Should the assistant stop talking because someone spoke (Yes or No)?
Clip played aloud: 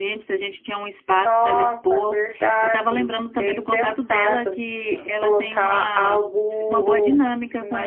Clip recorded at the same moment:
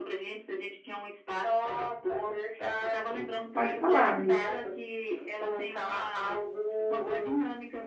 Yes